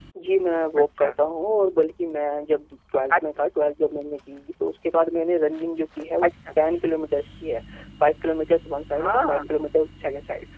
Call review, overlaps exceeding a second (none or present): none